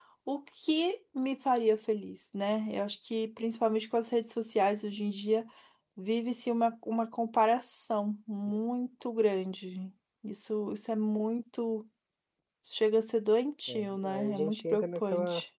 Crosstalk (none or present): present